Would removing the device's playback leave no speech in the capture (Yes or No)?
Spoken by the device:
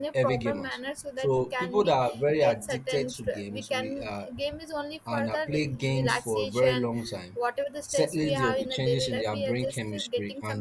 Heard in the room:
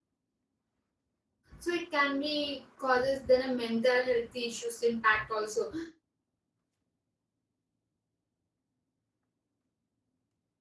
No